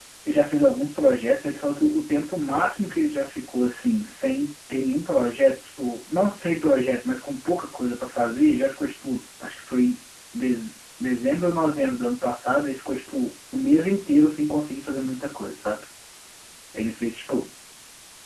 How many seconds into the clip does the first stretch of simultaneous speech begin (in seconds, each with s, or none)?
none